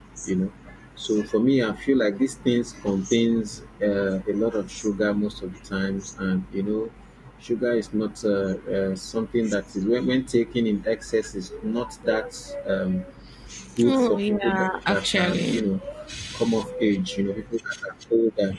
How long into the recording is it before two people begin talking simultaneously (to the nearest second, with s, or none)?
14 s